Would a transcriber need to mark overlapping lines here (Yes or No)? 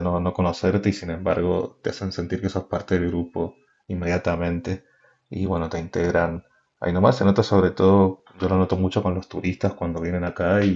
No